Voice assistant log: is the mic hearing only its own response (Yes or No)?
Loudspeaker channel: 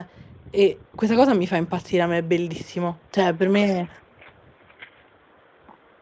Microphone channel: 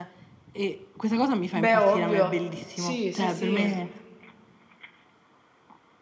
No